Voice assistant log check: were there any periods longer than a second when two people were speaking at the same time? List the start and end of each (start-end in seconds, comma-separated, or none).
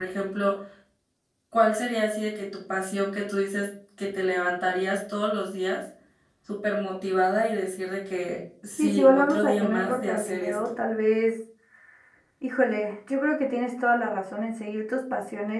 8.8-10.8